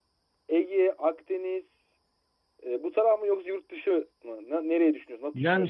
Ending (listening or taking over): taking over